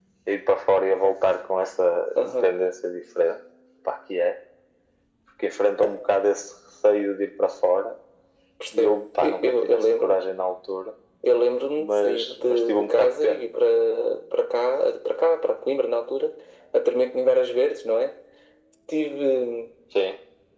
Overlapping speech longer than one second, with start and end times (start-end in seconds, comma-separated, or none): 8.8-10.2, 11.8-13.4